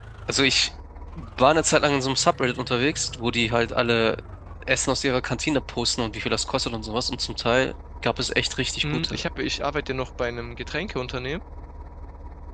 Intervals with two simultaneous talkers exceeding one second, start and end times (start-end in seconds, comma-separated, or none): none